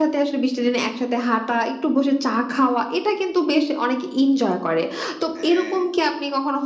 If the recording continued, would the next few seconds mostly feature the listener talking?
No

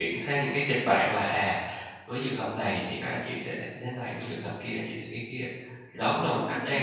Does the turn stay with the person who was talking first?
No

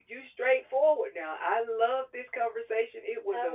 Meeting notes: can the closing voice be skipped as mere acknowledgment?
No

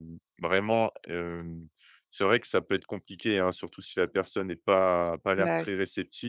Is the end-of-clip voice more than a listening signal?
No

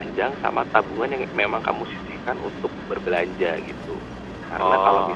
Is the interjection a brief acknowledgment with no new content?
Yes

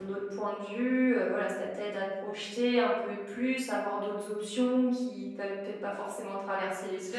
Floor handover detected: Yes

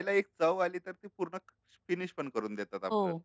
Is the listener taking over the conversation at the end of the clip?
Yes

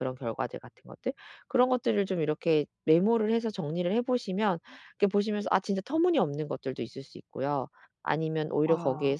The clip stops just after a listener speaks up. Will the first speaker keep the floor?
Yes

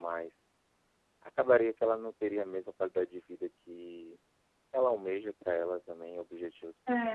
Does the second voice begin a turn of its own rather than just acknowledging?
Yes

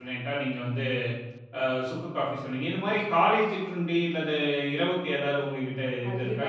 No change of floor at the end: No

